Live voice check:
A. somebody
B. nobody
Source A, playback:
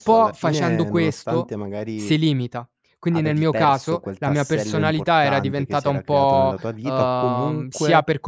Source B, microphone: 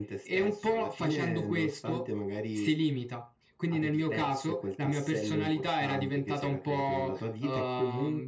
B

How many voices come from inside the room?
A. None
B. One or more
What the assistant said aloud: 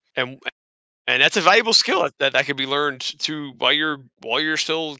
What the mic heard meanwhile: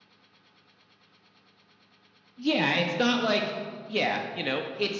B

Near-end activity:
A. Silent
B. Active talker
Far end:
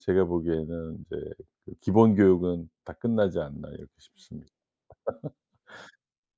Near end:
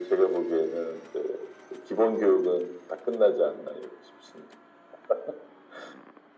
A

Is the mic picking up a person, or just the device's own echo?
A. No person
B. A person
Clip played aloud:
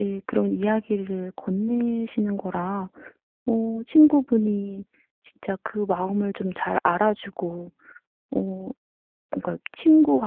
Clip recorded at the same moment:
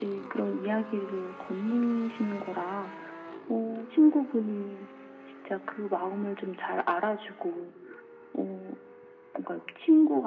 A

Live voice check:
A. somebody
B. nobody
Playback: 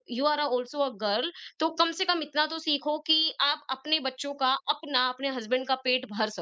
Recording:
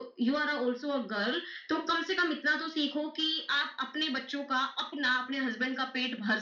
B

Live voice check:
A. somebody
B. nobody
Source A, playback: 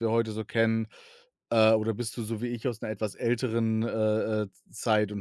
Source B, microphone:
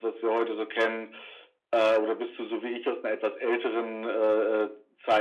B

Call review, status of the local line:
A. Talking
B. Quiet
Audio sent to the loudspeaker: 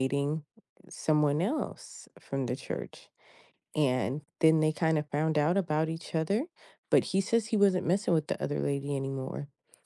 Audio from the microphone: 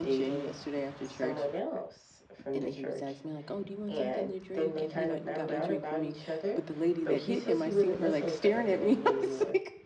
A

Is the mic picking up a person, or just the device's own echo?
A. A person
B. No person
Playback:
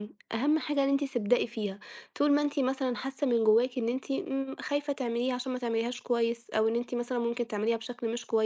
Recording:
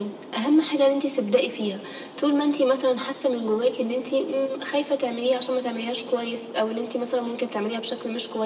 B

